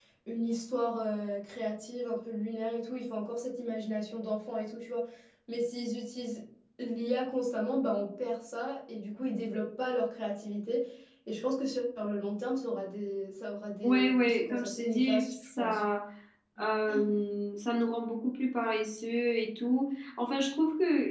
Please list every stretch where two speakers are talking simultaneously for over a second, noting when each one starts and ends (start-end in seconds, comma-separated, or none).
13.8-15.8